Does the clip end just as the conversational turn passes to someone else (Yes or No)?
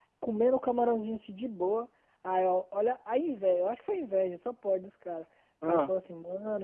No